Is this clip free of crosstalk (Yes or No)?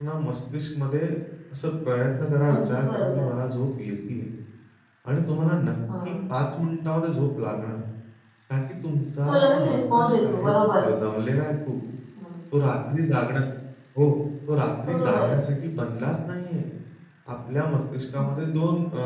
No